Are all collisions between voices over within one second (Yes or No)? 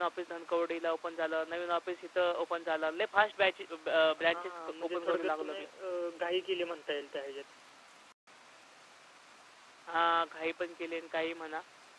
No